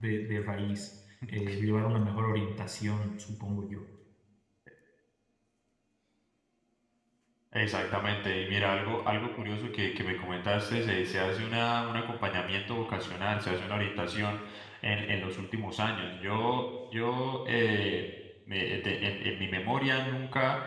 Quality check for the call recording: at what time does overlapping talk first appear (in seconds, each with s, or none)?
none